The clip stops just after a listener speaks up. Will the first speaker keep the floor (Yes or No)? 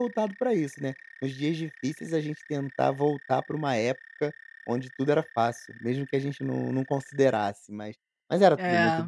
Yes